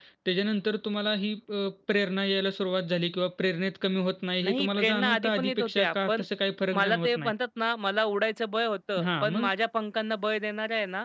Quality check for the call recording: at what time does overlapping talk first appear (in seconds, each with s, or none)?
4.4 s